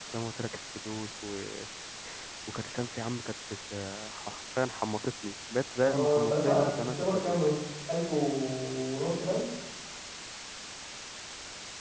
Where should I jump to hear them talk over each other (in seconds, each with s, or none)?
5.8 s